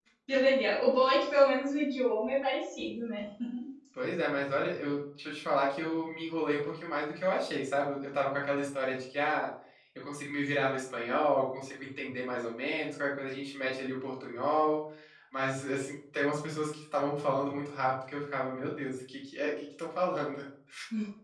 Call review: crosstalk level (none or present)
none